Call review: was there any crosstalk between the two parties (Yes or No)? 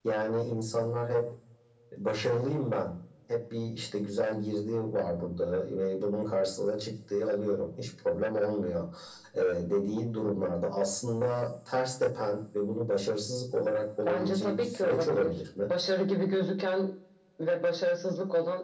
Yes